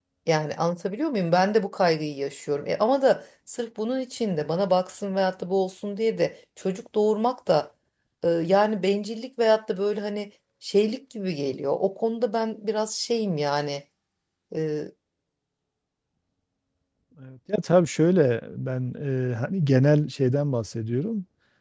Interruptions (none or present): none